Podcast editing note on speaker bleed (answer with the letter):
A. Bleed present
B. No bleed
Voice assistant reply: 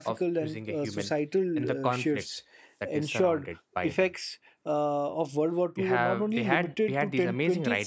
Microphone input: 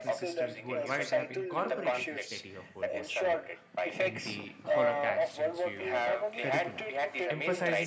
A